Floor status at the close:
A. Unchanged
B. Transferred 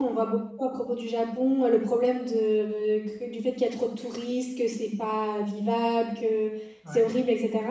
A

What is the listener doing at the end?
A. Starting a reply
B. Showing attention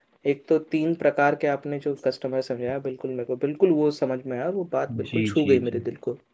A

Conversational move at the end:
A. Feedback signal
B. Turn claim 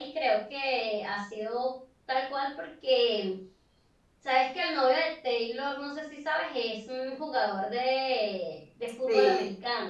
A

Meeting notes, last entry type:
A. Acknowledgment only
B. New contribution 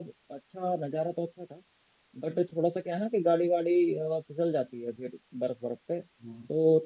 A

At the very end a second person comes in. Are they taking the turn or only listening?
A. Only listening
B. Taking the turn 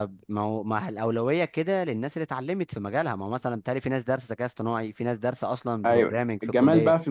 B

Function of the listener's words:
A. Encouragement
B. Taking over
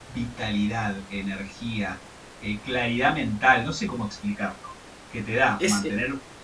A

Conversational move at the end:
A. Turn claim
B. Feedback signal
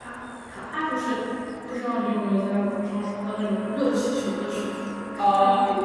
A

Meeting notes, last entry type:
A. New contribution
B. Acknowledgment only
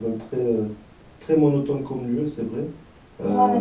B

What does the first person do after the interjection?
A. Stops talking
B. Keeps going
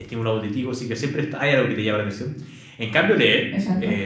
B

